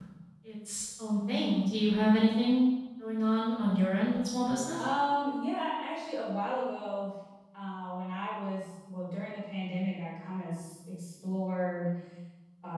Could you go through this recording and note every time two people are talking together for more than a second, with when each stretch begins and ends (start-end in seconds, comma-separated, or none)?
none